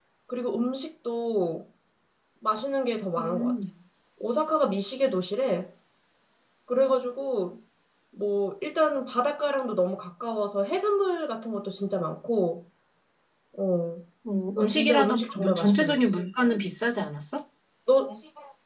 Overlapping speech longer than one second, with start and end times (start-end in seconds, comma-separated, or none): 14.6-16.0